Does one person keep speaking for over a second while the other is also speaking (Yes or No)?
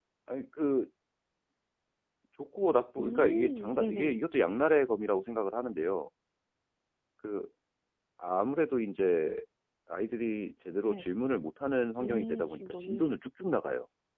Yes